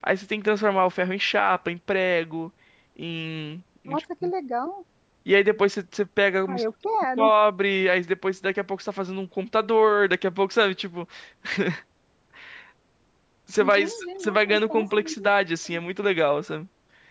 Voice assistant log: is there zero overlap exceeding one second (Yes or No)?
No